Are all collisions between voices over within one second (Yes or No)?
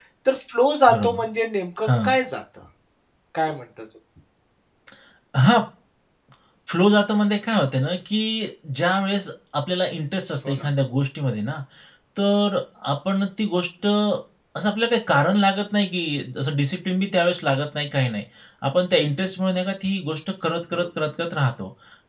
Yes